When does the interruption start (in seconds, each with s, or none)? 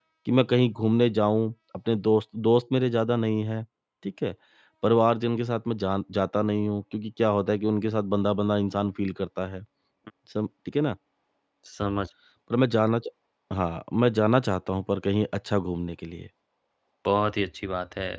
none